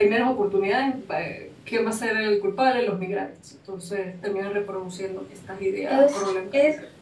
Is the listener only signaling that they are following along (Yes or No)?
No